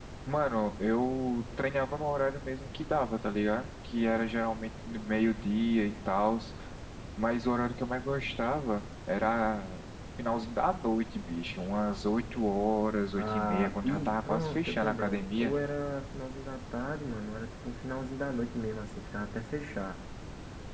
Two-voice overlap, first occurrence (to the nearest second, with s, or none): 13 s